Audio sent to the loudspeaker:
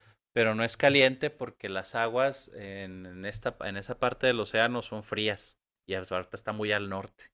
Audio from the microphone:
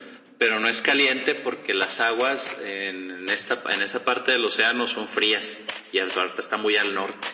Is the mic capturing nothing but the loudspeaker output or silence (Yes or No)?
Yes